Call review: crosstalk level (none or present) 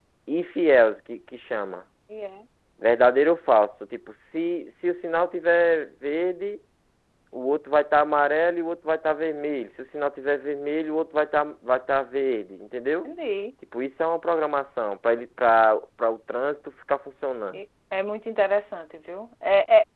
none